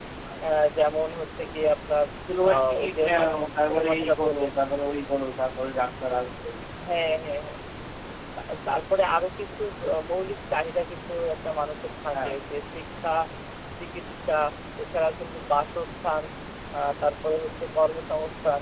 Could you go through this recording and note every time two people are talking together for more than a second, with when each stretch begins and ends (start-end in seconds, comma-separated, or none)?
2.5-4.5